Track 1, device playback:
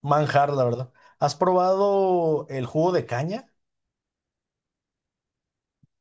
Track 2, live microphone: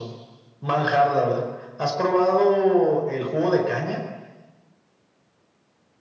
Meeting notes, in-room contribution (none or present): none